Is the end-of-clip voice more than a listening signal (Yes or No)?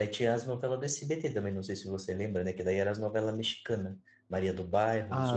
Yes